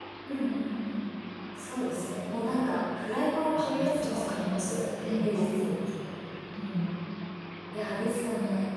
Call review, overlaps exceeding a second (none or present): present